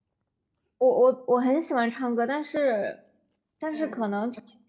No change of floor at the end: Yes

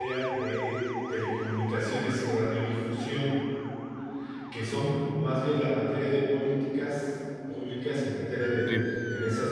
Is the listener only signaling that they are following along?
Yes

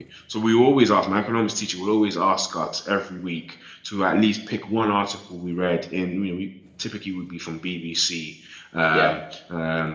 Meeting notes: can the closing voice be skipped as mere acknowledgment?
Yes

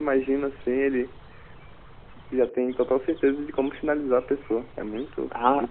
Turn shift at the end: Yes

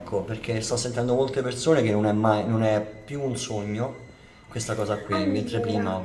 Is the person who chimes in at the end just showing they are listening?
Yes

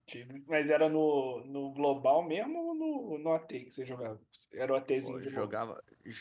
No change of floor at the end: No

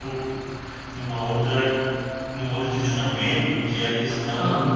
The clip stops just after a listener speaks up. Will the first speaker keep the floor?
Yes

